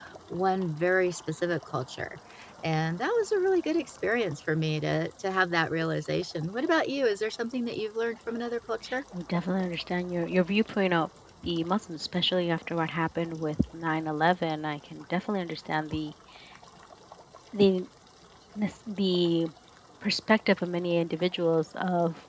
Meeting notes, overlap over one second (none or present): none